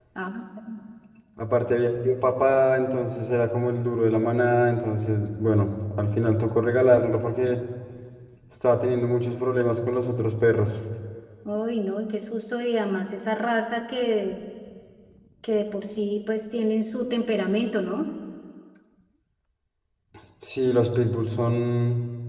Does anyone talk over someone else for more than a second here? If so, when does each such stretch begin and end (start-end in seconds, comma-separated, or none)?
none